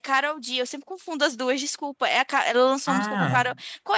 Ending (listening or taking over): listening